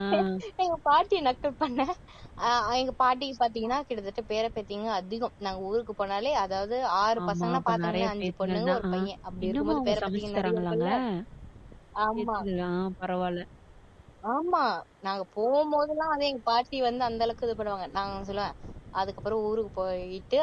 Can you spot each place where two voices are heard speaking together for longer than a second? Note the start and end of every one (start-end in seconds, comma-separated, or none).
7.3-8.8, 9.4-10.8